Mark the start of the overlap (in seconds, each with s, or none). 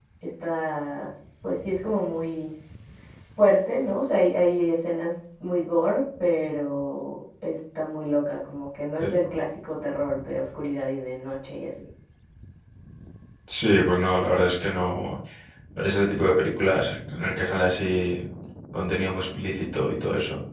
none